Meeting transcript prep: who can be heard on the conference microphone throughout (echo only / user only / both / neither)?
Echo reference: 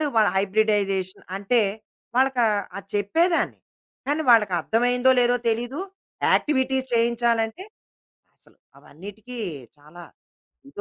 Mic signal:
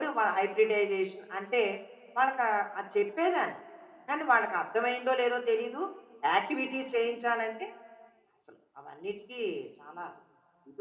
echo only